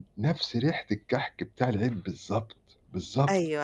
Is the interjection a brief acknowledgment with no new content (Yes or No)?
No